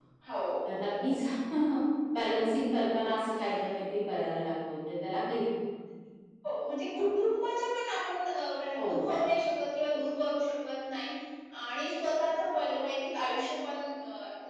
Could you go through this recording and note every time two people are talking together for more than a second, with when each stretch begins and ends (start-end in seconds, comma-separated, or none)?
none